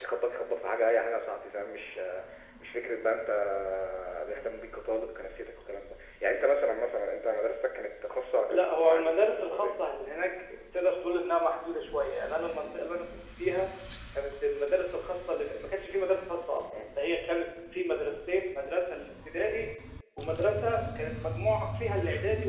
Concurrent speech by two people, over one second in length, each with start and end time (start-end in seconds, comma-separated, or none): 8.5-9.8